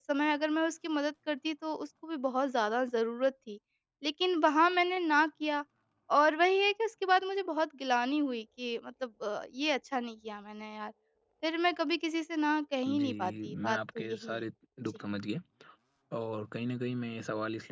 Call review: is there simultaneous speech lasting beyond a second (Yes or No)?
Yes